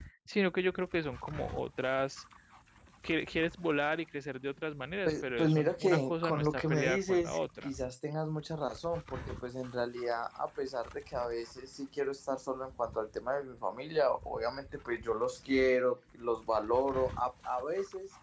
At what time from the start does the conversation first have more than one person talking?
5.0 s

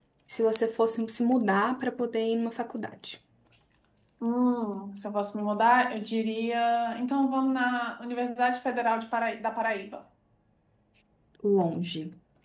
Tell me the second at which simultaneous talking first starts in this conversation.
none

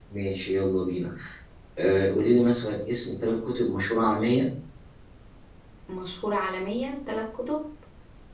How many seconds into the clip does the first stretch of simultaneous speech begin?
none

